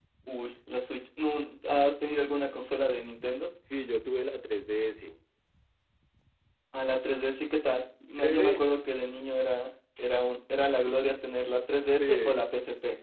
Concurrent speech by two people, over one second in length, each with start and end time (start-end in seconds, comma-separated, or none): none